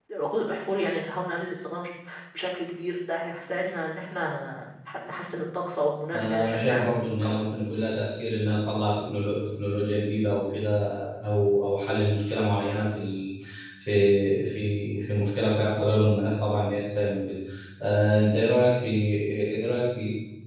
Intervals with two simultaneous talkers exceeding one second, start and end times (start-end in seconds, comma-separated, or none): 6.1-7.3